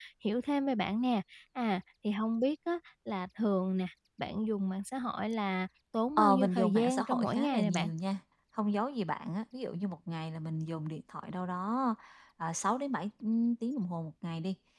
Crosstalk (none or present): present